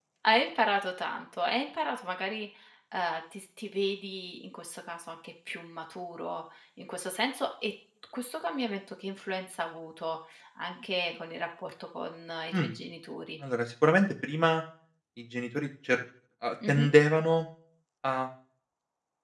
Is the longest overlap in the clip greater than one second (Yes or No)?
No